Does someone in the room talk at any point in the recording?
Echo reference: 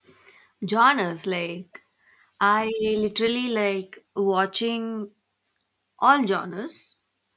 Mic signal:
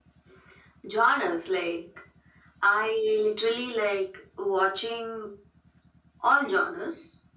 No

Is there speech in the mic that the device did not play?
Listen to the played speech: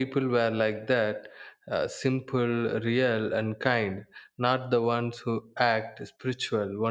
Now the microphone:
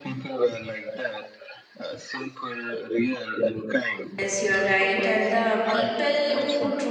Yes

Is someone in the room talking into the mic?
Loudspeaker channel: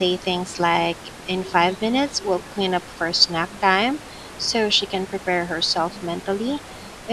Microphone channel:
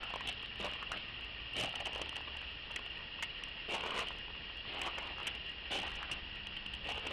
No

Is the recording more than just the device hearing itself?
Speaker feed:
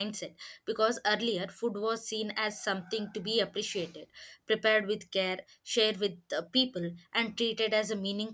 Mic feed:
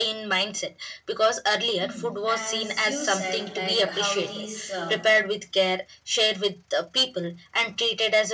Yes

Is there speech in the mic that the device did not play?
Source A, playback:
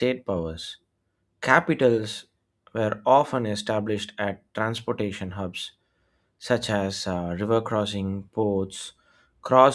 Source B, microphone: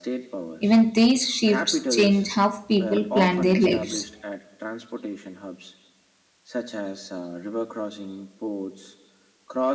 Yes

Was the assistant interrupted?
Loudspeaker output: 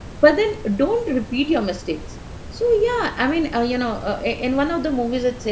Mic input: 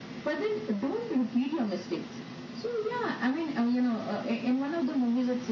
No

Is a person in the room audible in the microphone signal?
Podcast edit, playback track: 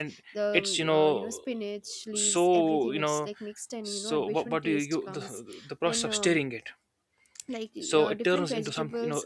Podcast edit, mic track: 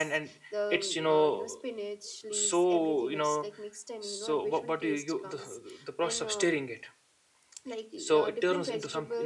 No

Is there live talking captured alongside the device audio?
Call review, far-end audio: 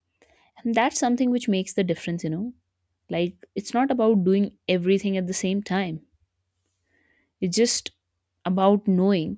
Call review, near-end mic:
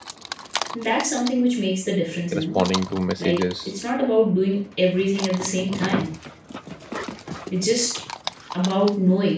Yes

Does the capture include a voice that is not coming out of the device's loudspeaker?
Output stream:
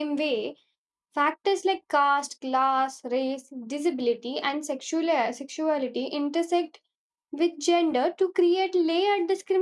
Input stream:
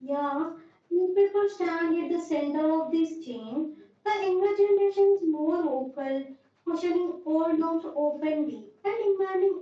Yes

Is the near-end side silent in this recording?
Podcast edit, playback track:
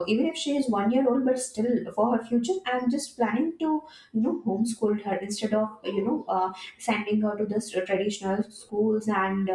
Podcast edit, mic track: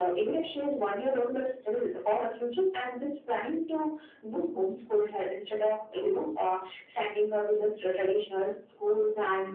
Yes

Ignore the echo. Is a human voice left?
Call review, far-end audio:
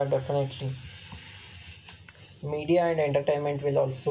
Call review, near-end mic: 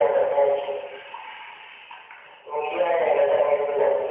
No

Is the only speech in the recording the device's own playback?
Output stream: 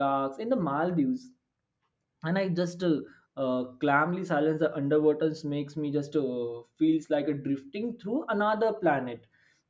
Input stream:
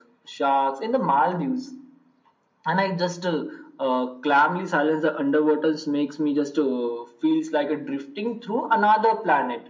Yes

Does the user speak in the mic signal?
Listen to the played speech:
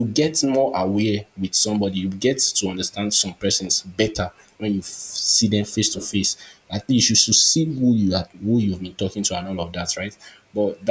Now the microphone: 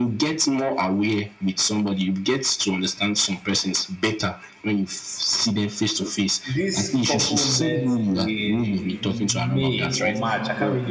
Yes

